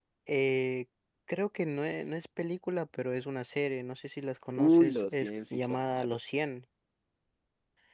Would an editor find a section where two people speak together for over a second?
Yes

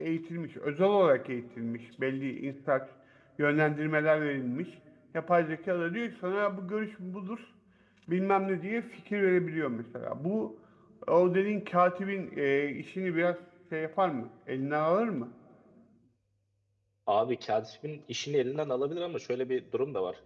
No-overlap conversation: Yes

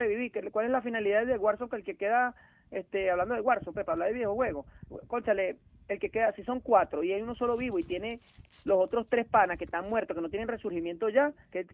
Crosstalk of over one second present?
No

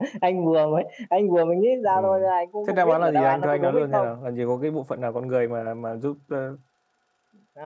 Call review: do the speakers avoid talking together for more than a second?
No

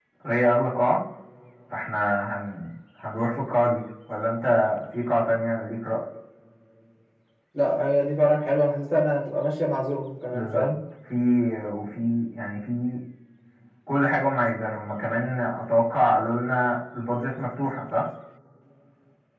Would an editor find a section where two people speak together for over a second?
No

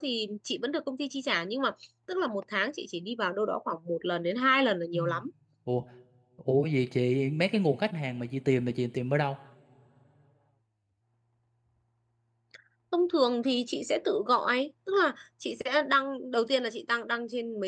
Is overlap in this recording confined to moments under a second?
Yes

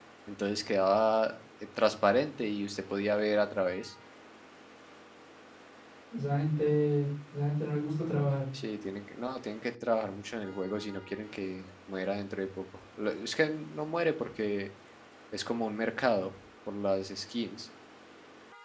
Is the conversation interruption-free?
Yes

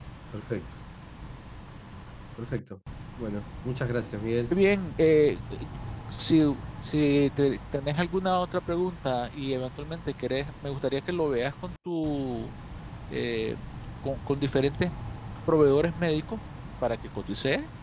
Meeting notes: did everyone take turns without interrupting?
Yes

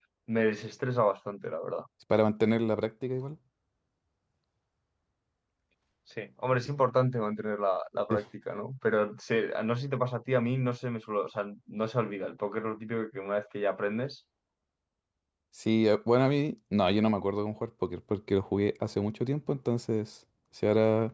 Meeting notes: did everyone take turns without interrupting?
Yes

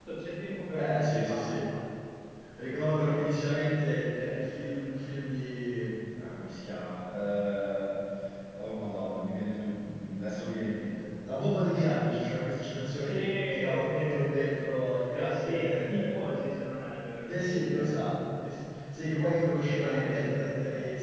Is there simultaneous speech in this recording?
Yes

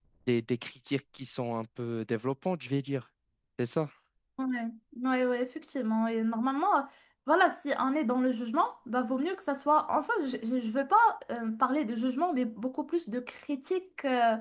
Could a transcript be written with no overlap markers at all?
Yes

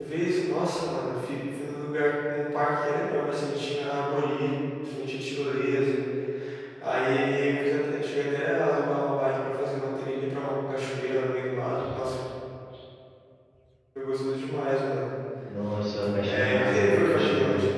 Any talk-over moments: Yes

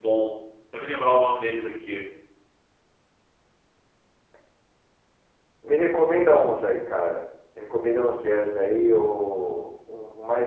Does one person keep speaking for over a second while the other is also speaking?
No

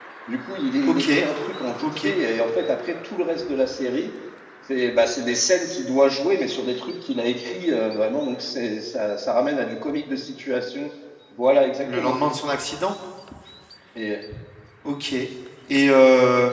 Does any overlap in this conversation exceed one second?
No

